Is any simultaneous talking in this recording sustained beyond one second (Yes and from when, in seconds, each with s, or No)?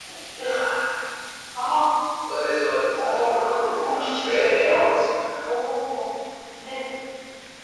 Yes, from 2.9 s